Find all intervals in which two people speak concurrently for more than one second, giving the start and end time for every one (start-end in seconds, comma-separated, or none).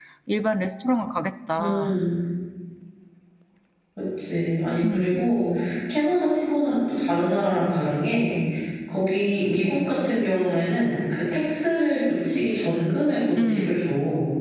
none